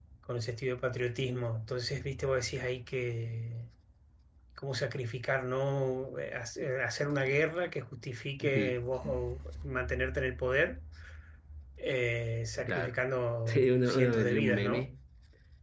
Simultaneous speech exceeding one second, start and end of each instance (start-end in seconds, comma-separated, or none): 13.4-14.9